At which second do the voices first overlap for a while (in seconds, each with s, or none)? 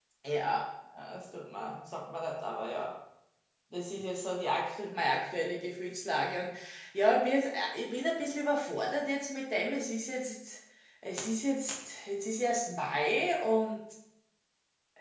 none